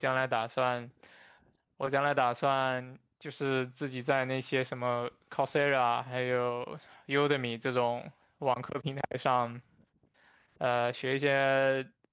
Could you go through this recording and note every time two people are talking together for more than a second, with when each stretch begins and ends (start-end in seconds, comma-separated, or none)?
none